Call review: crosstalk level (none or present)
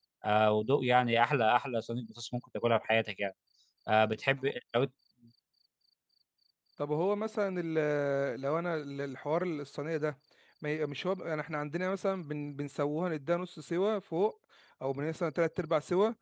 none